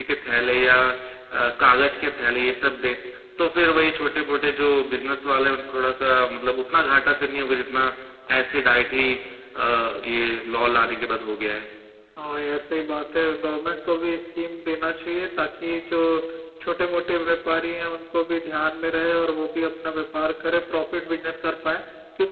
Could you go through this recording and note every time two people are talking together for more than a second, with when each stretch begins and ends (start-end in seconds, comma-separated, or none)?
none